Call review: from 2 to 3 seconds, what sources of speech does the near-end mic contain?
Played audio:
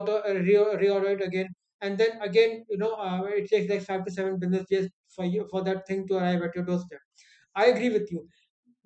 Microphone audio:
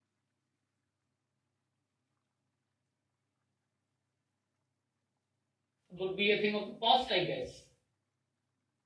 neither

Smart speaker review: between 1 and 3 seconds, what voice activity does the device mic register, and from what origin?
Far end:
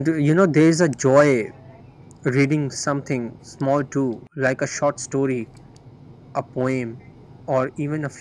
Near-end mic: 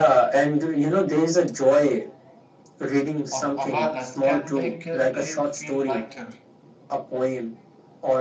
echo only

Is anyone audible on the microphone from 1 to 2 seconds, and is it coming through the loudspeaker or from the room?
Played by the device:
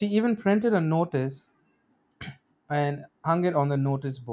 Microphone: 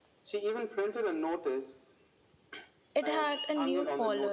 echo only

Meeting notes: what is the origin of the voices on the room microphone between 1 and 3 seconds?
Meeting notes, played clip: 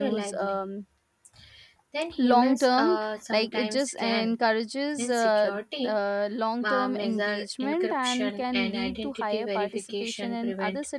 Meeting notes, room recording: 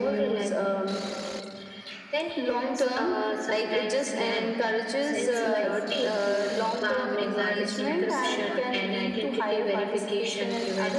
echo only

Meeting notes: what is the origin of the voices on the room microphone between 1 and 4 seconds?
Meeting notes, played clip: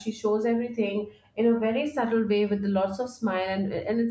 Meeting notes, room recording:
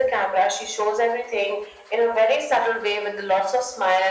echo only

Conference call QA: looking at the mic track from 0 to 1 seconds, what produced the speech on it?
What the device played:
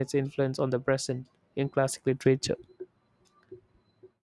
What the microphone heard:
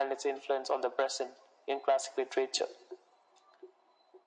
echo only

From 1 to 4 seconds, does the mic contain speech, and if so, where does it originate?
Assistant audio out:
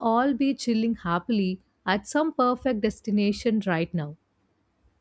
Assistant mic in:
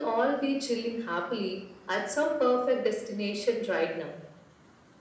echo only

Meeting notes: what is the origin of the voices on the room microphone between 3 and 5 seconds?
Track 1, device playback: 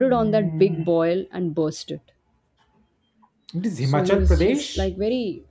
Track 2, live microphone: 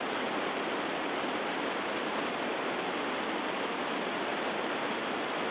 neither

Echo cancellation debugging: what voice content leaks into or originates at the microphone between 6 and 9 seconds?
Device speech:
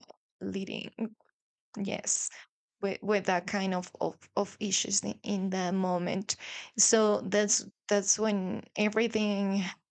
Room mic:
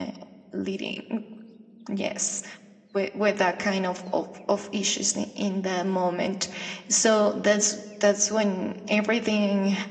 echo only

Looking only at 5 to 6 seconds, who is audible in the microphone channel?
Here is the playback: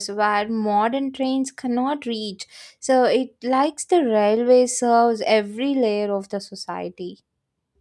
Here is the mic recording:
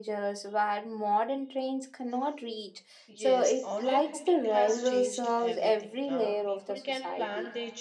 both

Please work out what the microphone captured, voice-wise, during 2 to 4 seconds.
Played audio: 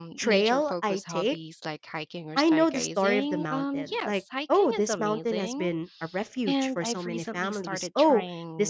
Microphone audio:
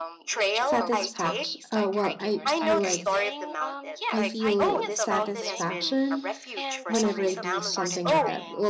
both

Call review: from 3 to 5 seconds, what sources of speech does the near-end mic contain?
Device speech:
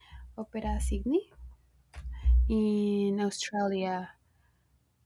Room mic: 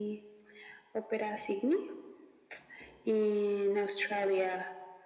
echo only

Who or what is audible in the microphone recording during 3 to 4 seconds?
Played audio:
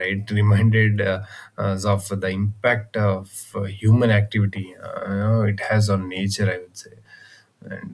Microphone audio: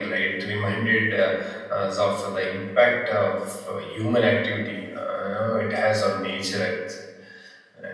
echo only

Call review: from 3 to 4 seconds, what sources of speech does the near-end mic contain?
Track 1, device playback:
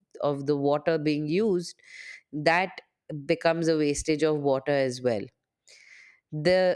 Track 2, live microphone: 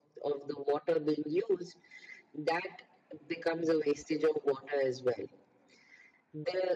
echo only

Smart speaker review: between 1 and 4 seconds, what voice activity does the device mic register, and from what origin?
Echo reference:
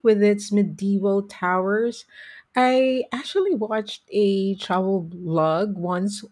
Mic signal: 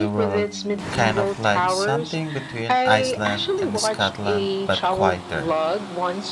both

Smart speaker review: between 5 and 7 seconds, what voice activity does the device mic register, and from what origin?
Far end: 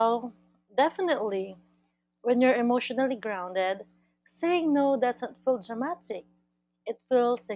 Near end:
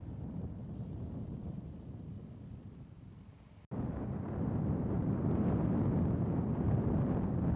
neither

